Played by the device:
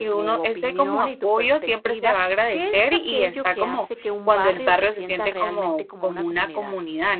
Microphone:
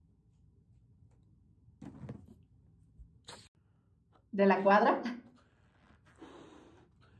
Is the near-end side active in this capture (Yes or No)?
Yes